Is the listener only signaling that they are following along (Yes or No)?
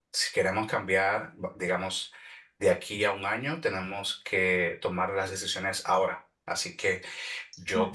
Yes